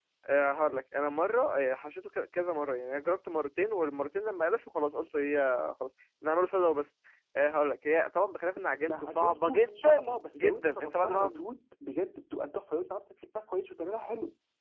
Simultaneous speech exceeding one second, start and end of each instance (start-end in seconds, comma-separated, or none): 8.9-11.4